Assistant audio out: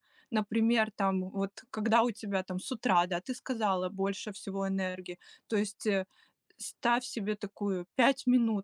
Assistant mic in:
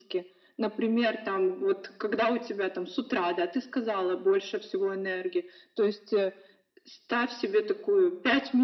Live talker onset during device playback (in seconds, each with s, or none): none